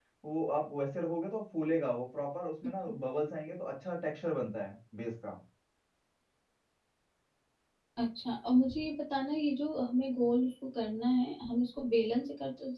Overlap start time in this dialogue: none

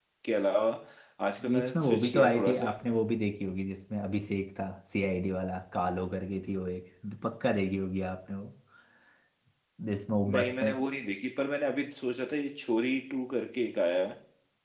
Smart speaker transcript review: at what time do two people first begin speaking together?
1.5 s

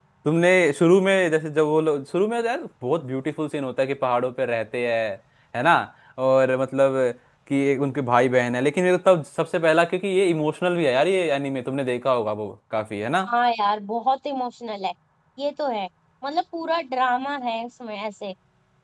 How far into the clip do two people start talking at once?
none

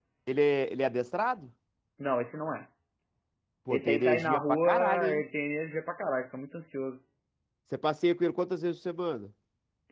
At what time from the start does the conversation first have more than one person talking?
3.7 s

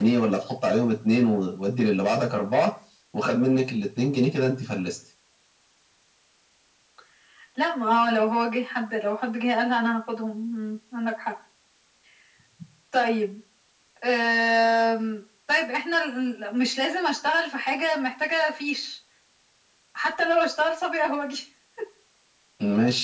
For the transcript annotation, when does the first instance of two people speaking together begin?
none

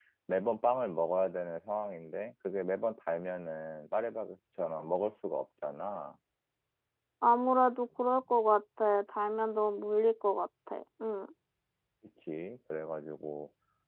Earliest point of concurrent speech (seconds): none

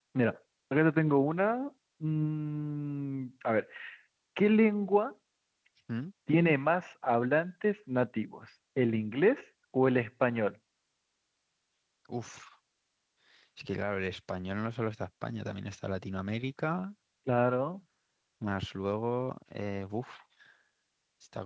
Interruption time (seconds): none

